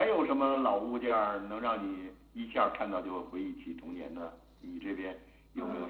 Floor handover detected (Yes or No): Yes